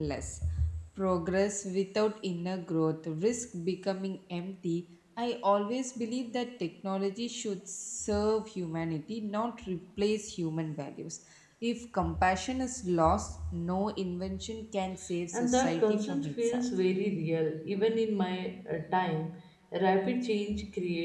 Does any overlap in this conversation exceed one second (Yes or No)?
Yes